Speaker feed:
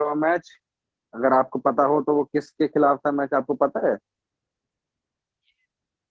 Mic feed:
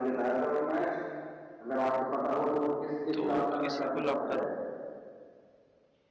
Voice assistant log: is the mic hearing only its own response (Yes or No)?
No